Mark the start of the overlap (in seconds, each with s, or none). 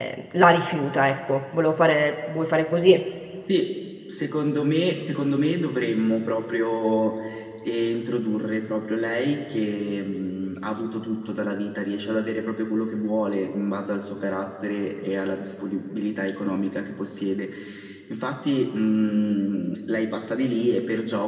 none